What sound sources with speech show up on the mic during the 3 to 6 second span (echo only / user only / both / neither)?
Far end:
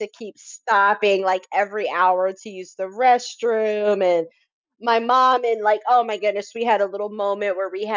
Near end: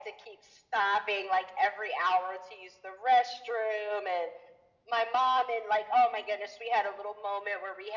echo only